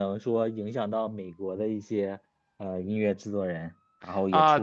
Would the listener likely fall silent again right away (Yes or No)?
No